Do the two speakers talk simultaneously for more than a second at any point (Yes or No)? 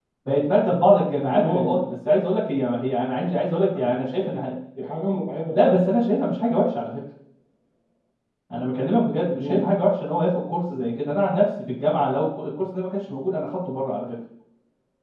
No